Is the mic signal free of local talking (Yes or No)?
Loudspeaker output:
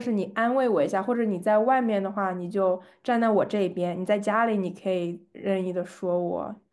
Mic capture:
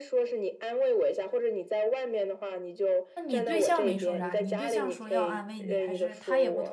No